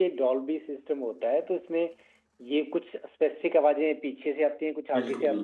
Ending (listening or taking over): listening